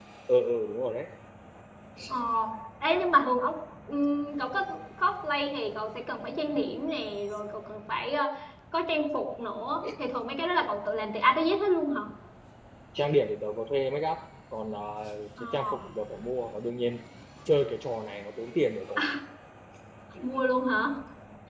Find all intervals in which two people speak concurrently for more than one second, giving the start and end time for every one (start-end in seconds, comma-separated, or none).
none